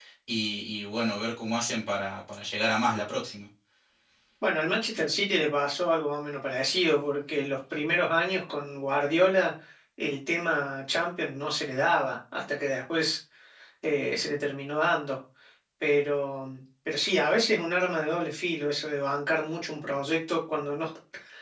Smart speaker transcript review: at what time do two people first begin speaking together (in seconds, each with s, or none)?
none